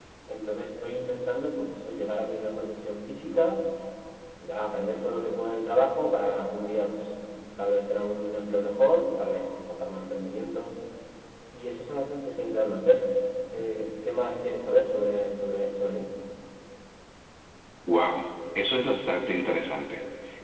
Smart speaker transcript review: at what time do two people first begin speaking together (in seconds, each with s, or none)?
none